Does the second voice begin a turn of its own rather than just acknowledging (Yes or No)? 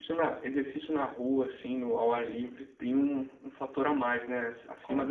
Yes